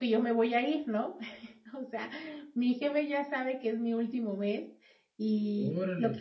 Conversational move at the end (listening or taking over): listening